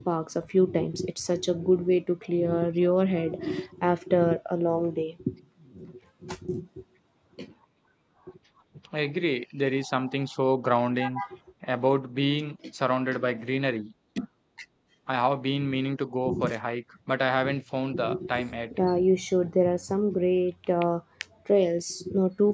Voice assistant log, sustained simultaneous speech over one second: none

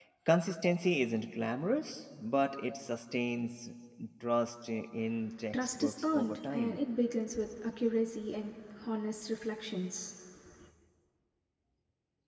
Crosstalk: present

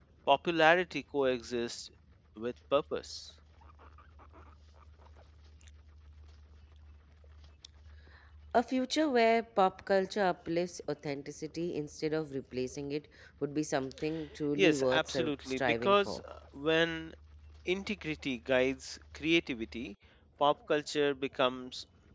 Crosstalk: present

